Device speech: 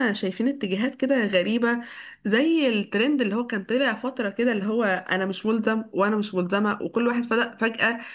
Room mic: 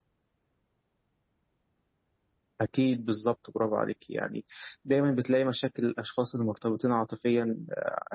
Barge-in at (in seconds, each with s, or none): 2.6 s